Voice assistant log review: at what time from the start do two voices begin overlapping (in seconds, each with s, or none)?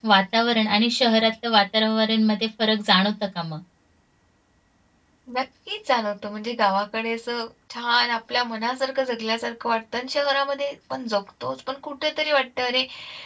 none